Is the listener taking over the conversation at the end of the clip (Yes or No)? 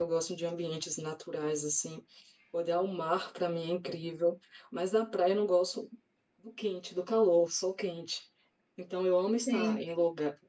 No